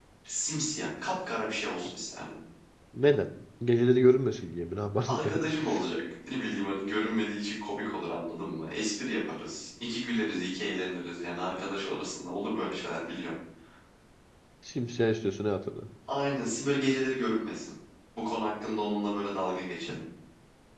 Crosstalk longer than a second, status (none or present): none